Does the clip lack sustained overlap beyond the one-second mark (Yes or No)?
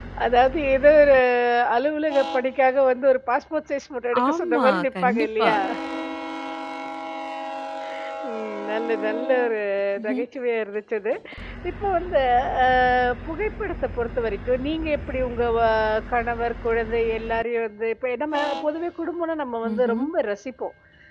No